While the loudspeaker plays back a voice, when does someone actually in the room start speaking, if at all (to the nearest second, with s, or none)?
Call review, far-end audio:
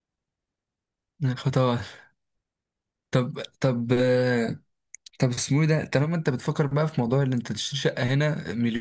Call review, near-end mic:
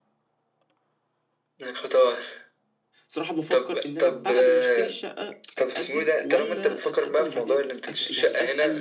3 s